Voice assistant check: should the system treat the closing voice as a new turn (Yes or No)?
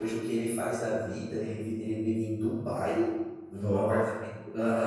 No